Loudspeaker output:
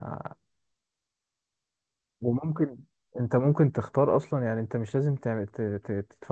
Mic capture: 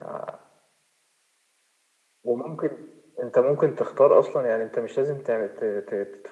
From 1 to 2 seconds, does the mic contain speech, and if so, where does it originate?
neither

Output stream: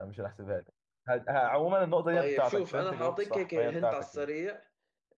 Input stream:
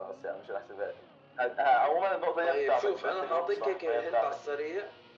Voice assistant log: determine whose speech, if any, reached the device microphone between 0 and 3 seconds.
echo only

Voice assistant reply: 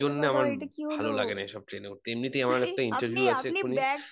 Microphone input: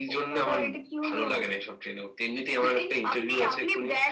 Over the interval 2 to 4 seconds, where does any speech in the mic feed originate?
echo only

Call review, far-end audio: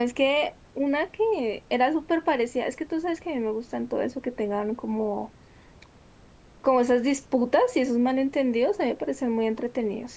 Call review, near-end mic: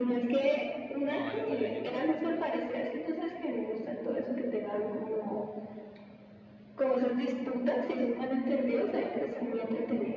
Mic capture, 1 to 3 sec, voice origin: both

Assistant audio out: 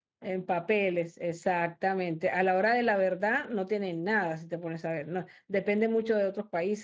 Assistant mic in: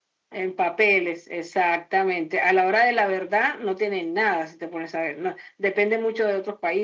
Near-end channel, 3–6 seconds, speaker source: echo only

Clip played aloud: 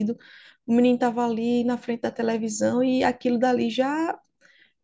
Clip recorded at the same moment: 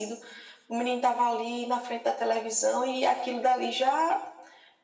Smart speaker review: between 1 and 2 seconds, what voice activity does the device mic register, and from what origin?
echo only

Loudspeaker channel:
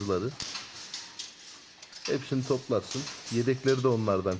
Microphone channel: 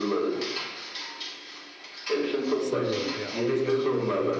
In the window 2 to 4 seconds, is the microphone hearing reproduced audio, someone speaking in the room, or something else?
both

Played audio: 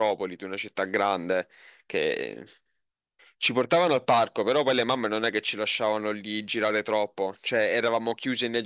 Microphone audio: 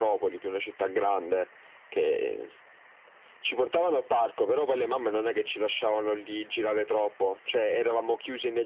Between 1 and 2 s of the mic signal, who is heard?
echo only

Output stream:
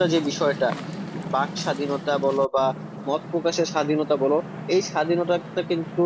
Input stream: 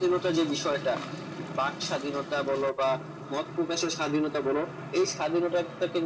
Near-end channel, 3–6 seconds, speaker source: echo only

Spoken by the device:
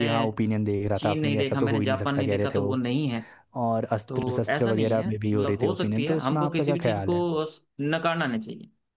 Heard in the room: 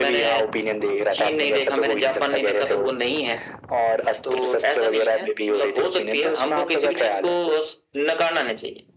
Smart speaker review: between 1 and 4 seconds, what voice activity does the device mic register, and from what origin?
echo only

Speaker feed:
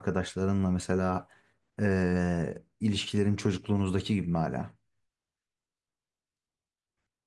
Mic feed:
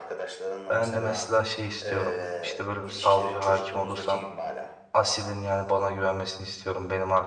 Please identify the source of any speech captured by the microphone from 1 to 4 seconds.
both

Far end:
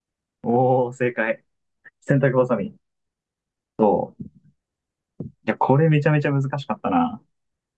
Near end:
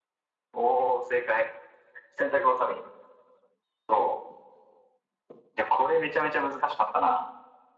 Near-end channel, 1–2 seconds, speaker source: echo only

